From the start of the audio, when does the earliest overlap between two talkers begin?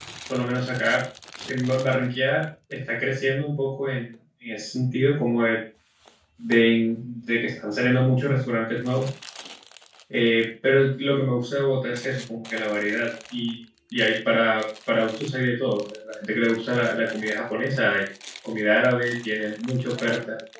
none

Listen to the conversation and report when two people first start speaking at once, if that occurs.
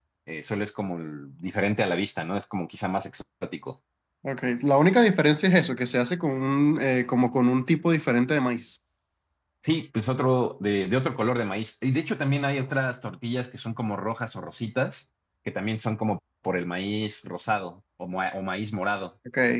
none

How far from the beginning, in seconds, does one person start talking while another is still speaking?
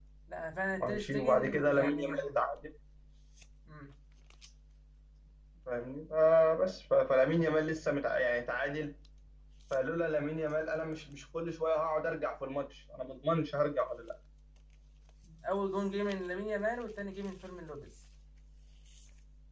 0.7 s

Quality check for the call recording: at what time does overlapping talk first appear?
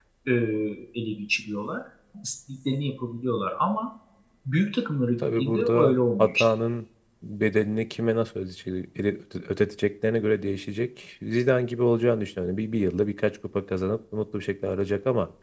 5.2 s

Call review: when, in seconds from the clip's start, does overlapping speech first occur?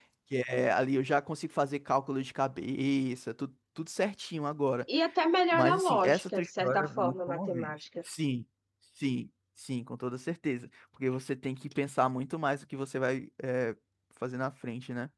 5.5 s

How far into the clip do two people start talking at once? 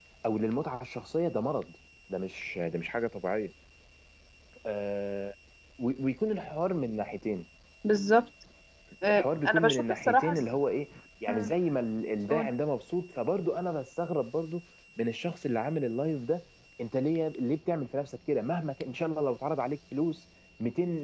9.1 s

